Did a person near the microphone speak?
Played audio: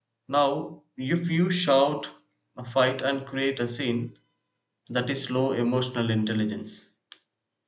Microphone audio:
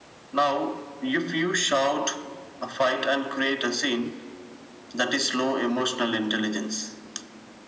No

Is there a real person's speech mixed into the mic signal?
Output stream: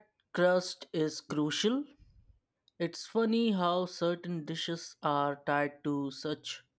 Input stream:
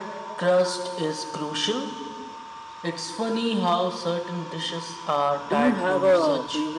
Yes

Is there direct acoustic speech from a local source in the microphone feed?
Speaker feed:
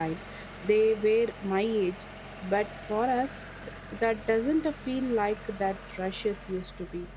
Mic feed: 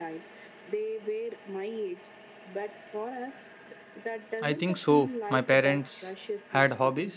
Yes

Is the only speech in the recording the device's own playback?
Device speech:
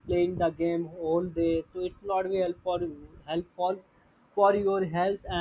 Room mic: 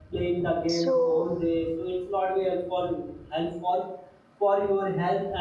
No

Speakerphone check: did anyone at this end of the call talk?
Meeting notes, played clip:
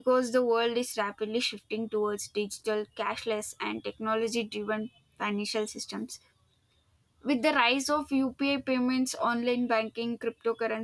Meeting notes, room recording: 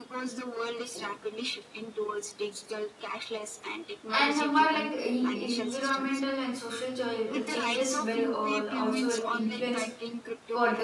Yes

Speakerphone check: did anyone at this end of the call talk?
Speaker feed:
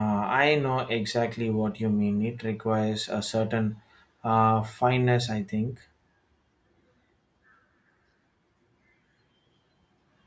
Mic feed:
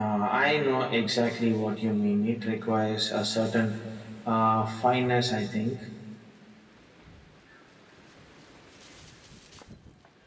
No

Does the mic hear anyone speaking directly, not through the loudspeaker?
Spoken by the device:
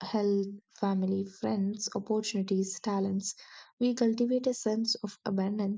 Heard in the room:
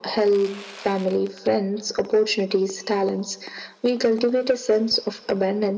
No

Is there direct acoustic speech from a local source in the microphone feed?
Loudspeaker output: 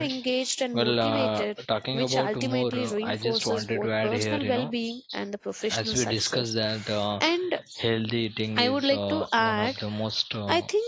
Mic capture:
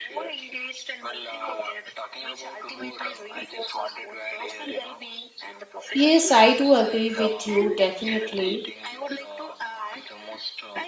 Yes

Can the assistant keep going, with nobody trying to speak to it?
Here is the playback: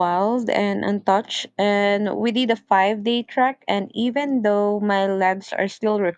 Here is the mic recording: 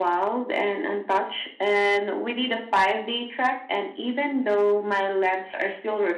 Yes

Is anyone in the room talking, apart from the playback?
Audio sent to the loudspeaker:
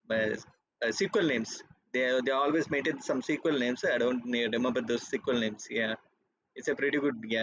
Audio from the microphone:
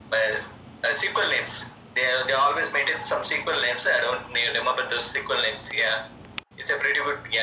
No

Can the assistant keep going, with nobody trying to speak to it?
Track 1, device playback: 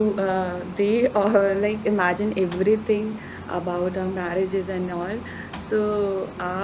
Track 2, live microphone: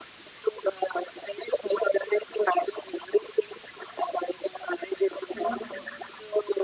No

